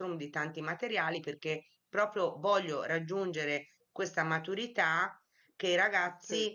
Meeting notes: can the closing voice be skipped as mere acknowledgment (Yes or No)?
Yes